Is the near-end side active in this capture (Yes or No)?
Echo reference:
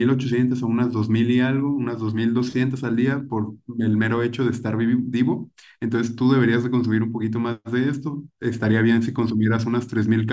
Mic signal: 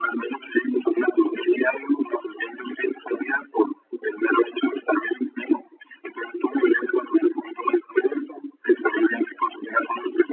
No